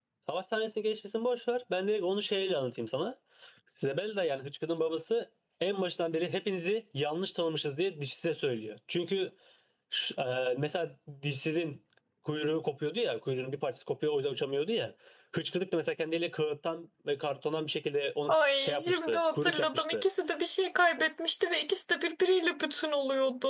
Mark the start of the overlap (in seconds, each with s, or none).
18.3 s